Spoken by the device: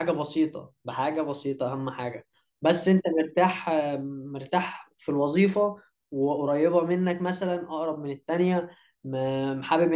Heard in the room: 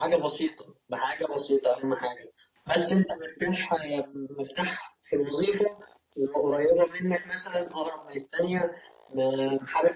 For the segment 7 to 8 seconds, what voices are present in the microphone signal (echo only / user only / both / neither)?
echo only